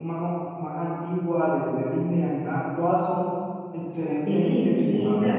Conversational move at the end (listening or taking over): taking over